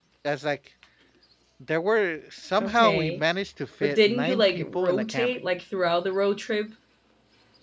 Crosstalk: present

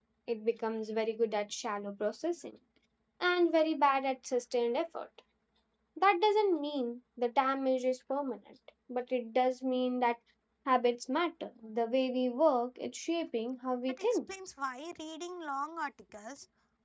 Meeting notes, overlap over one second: none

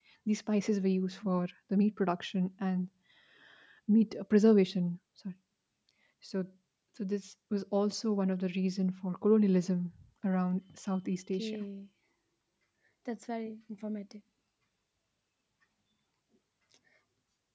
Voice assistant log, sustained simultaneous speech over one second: none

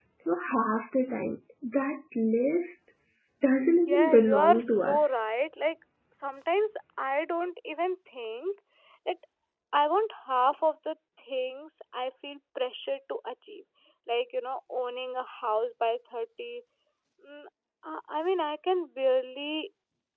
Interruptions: present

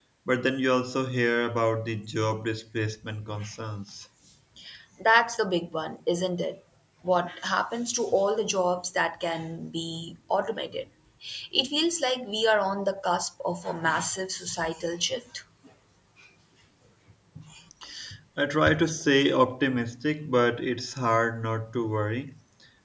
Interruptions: none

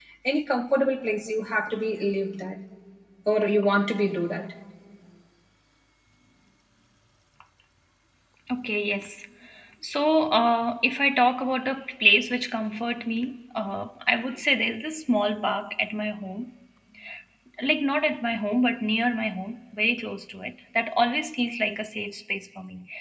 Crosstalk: none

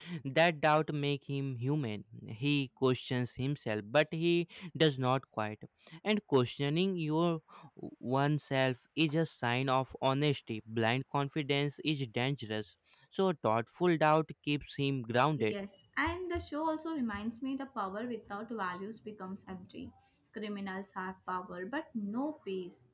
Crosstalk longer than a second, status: none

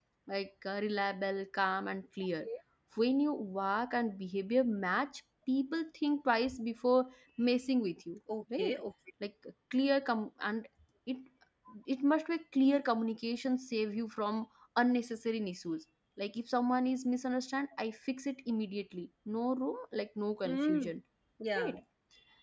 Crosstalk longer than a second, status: none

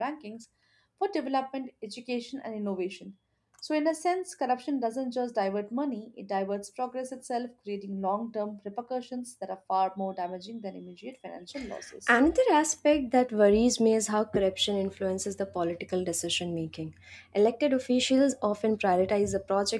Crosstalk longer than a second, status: none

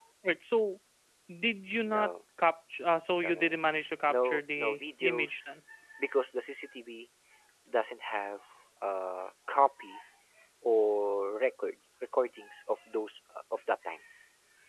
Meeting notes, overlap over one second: present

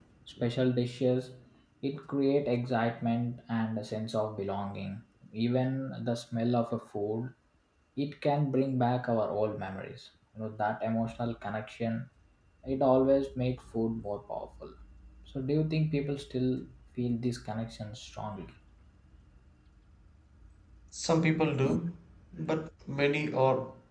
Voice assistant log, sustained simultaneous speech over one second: none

